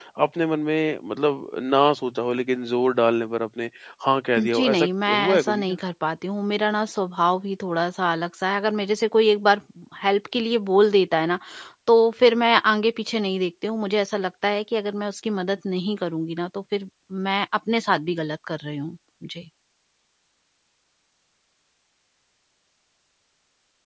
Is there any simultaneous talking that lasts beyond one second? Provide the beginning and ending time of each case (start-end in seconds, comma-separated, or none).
4.4-5.8